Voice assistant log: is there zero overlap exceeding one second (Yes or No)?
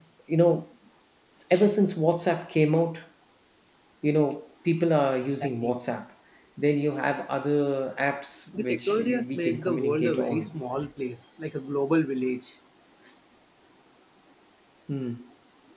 No